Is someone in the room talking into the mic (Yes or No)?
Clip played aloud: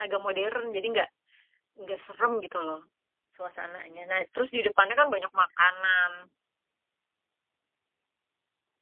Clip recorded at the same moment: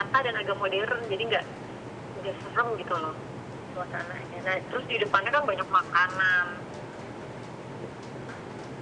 No